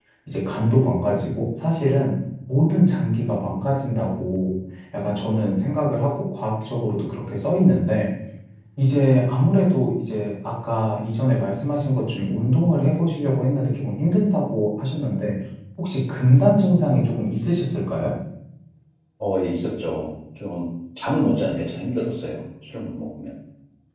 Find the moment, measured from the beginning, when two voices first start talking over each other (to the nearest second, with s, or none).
none